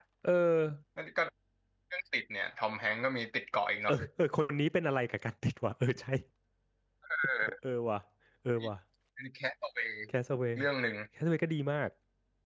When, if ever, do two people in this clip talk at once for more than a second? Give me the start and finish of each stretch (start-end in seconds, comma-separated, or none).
none